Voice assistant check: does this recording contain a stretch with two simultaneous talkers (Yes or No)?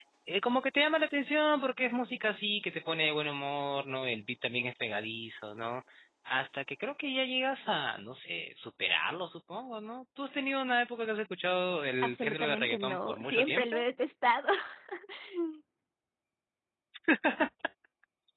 Yes